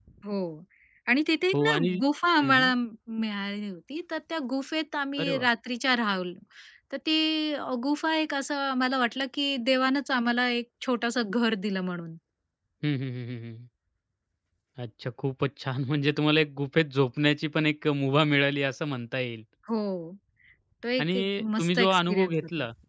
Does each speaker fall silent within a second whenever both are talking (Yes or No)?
No